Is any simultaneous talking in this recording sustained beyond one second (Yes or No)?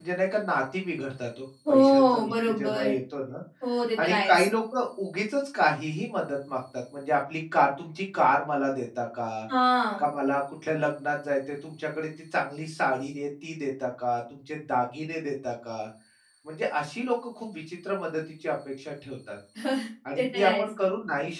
Yes